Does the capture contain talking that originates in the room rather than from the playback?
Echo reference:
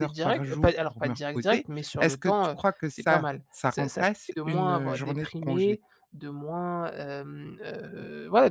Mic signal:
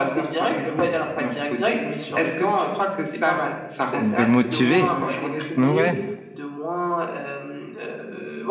Yes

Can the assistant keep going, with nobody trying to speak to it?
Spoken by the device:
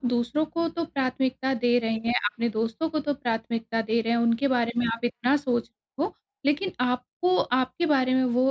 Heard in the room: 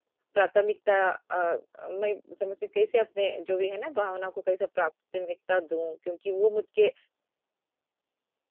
No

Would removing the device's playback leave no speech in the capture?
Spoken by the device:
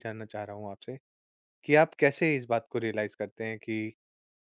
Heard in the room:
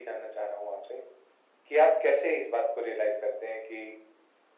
Yes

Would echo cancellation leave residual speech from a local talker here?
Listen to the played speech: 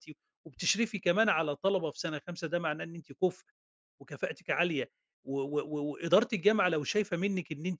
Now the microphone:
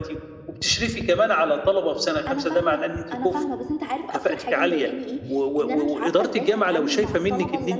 Yes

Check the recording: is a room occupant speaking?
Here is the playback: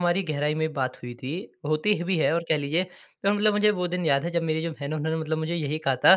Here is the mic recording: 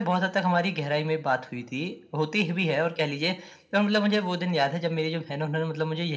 No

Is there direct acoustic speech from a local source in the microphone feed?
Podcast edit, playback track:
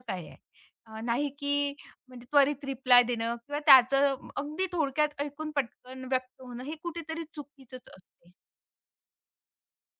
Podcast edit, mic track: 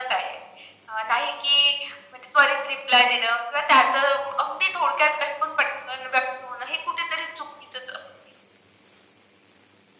No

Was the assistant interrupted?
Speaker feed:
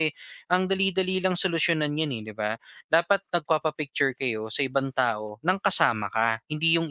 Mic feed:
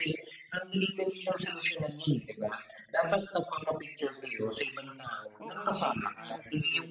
Yes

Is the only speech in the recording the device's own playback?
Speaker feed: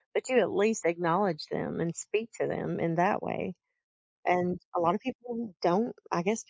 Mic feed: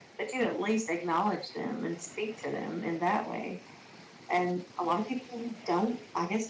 Yes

